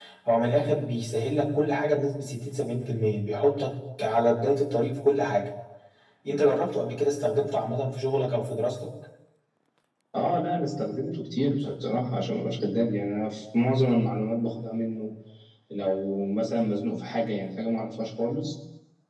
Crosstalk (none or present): none